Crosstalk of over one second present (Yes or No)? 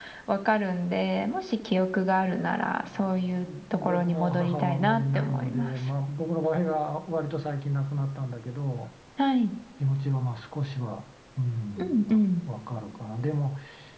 Yes